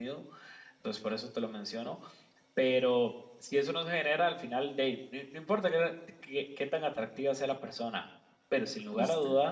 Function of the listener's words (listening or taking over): listening